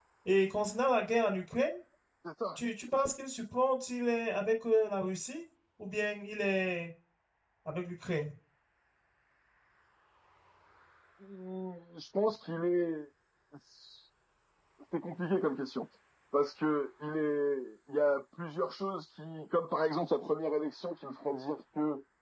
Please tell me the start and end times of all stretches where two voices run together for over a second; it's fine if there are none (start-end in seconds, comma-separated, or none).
none